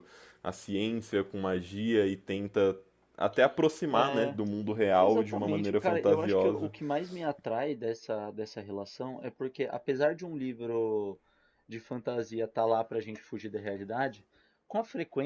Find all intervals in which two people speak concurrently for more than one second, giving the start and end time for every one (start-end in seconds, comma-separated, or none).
5.0-6.7